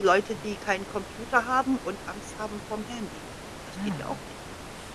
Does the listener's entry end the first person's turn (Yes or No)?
Yes